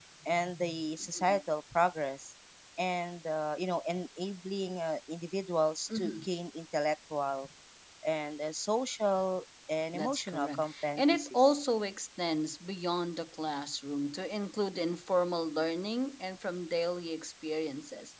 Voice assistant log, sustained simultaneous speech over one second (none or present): present